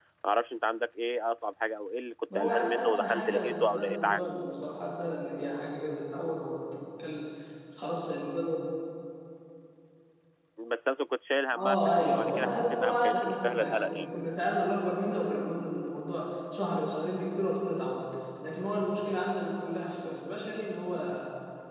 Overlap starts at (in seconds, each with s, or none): 2.4 s